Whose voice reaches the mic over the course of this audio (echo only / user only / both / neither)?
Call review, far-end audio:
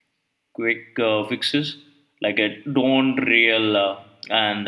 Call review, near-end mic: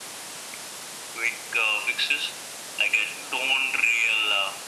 echo only